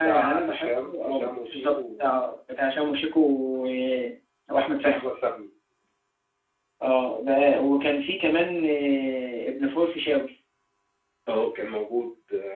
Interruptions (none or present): present